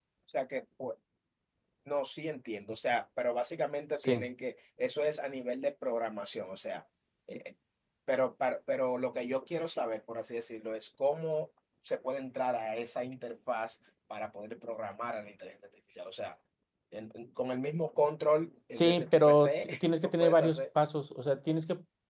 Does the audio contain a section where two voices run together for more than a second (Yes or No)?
Yes